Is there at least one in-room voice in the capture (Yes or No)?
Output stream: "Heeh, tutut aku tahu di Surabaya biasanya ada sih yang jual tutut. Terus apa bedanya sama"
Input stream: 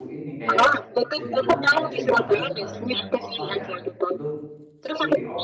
Yes